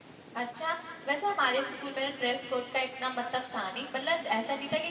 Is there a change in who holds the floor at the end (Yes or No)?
No